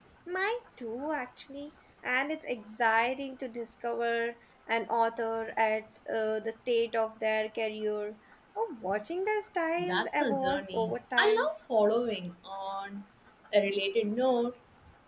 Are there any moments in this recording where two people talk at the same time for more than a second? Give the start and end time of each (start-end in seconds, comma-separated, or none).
9.8-11.5